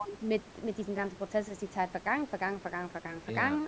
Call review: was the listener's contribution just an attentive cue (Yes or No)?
Yes